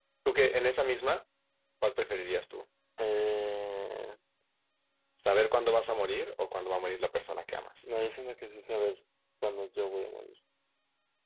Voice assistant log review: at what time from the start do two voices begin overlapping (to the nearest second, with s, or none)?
none